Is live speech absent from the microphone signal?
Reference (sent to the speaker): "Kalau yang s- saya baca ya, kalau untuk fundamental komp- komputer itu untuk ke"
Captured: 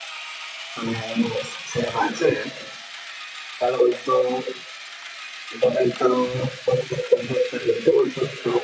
Yes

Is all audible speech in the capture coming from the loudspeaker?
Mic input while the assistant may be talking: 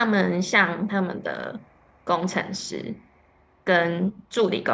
No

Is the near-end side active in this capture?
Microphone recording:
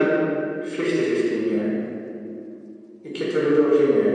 No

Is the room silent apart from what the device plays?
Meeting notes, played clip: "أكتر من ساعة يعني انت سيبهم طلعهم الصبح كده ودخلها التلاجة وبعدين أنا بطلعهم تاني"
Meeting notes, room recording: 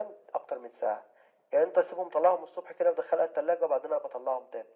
Yes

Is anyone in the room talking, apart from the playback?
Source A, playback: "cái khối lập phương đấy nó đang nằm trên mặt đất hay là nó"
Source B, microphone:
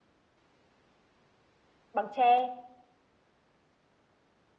Yes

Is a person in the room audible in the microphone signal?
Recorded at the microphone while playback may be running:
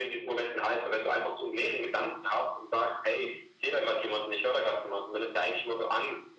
No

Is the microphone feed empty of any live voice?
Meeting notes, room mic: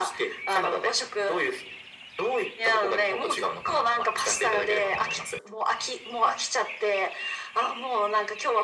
Yes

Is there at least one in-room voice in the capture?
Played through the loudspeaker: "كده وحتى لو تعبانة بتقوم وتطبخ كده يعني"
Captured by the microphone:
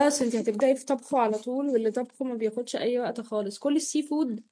Yes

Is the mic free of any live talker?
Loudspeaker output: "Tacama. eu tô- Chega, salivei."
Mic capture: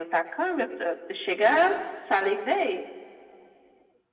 Yes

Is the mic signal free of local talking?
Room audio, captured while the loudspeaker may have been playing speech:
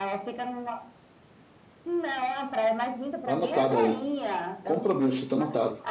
No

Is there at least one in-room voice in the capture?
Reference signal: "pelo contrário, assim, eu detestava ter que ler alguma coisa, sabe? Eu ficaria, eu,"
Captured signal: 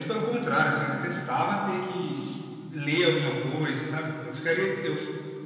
No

